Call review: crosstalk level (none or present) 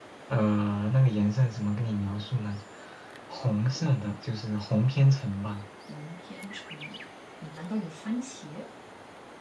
none